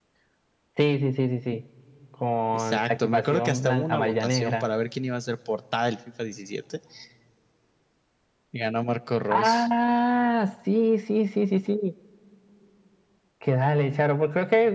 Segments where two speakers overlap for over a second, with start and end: 2.5-4.7

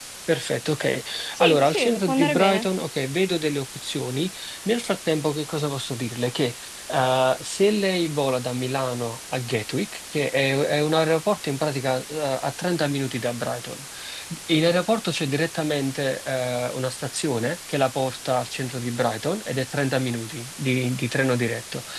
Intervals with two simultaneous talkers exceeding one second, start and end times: 1.4-2.7

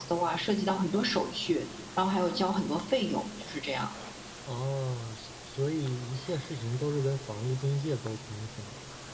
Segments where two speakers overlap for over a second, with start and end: none

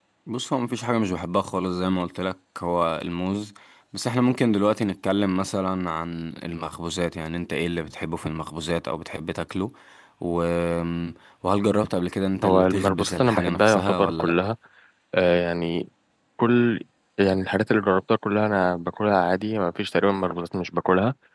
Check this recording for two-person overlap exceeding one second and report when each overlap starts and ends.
12.4-14.3

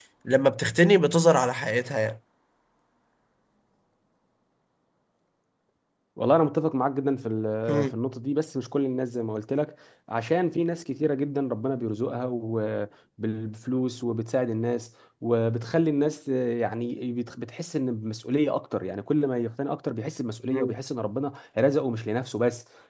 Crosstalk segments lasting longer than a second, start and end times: none

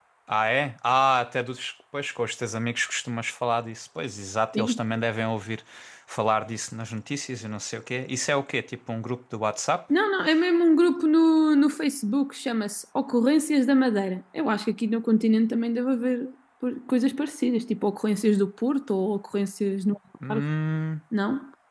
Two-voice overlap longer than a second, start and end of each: none

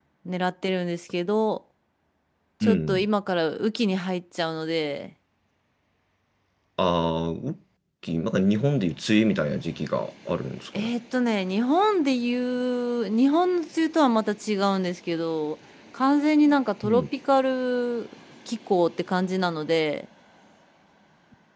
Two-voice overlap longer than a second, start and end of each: none

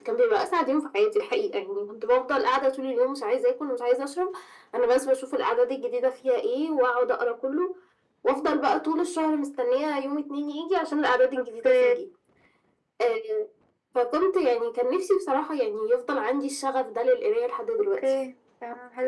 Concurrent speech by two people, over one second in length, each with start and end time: none

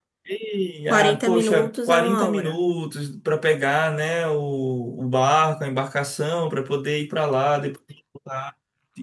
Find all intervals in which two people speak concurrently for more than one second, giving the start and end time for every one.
0.9-2.5

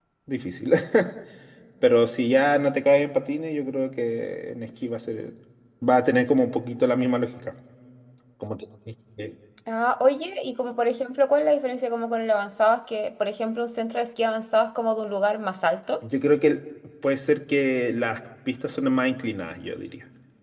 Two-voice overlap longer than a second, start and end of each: none

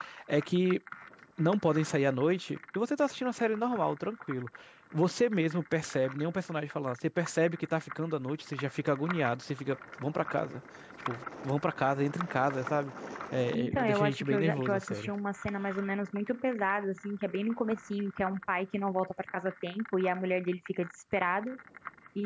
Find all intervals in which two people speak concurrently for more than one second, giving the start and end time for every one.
13.5-15.1

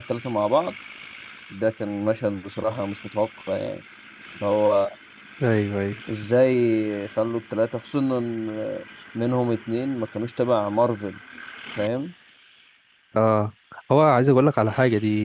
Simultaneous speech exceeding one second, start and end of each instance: none

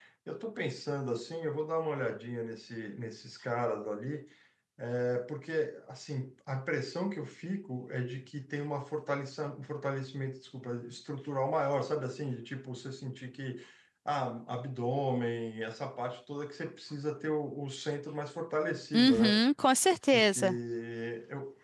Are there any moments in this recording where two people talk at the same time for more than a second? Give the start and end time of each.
none

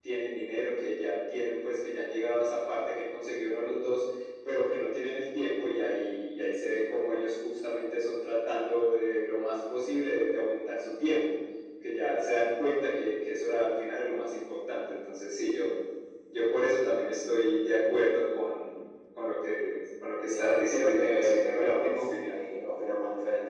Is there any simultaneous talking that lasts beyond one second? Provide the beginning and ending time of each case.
20.3-22.4

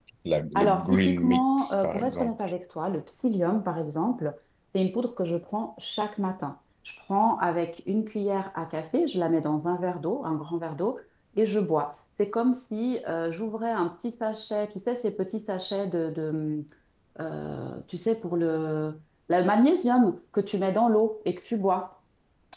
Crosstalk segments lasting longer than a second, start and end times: 0.5-2.3

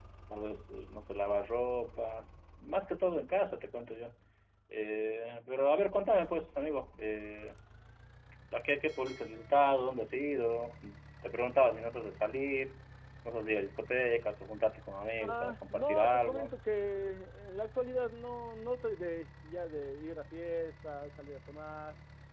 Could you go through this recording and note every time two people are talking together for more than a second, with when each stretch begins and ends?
15.2-16.6

